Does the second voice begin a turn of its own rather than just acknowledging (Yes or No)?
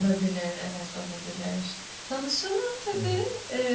No